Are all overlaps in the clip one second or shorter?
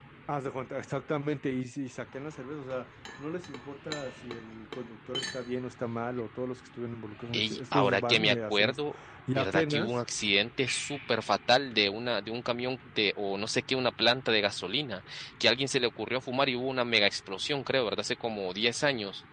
No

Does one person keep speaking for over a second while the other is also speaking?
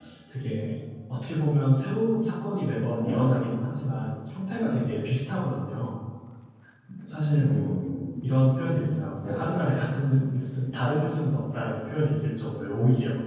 No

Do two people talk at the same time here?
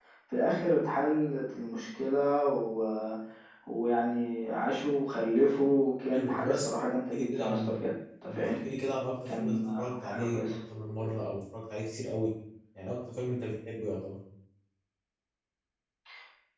Yes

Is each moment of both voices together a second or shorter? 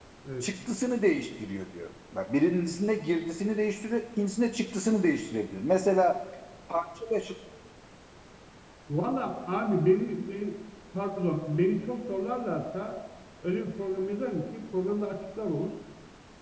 Yes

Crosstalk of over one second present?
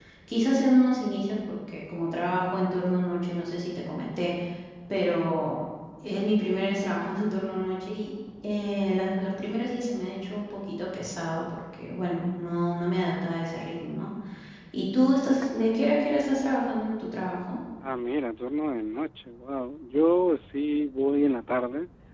No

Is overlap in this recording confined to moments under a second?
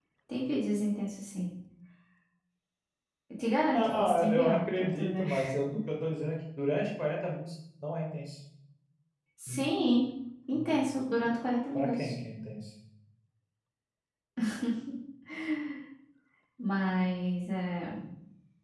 No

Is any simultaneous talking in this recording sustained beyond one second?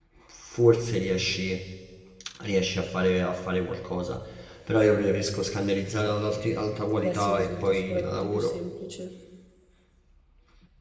Yes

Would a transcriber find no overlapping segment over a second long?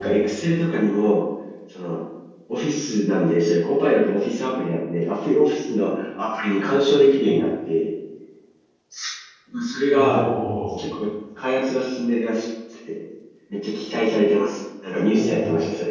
Yes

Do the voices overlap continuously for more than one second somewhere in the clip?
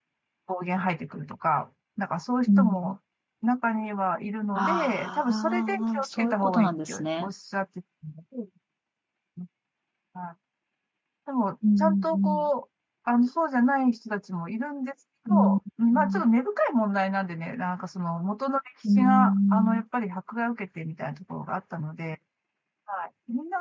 Yes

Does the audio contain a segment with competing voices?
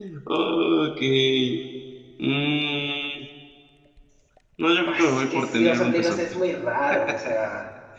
Yes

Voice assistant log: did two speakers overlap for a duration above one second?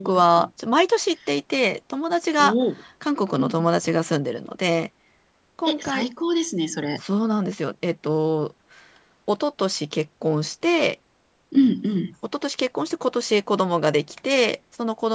No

